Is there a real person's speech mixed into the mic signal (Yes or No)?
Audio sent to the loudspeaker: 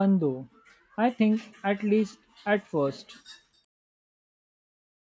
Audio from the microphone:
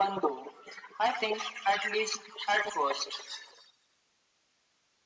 No